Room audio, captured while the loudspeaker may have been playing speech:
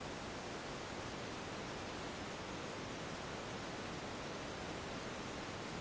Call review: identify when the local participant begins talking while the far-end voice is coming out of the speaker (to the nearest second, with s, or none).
none